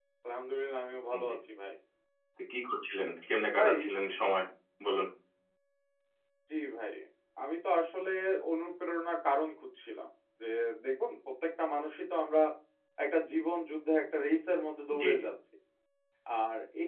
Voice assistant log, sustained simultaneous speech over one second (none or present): none